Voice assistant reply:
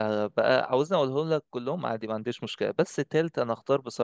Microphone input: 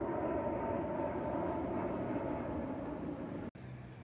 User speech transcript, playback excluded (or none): none